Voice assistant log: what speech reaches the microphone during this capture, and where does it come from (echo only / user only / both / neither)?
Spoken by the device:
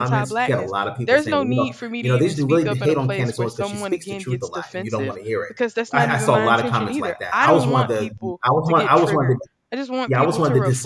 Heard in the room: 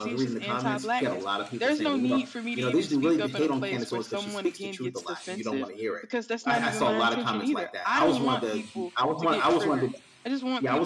echo only